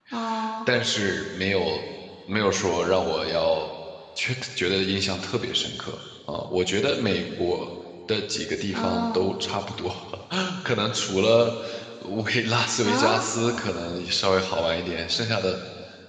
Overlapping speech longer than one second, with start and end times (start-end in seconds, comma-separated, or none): none